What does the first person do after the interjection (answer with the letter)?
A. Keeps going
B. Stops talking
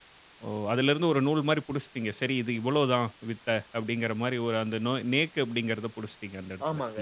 B